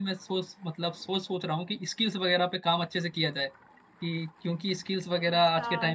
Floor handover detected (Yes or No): Yes